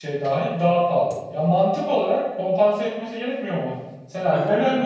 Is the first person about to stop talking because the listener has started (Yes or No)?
No